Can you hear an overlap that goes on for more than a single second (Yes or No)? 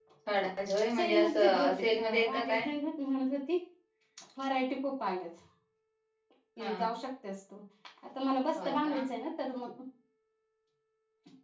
Yes